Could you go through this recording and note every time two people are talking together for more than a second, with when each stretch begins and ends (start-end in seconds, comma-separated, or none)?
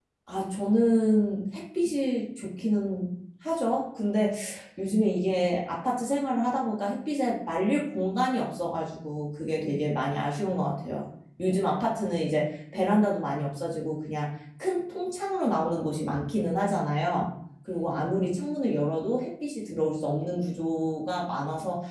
none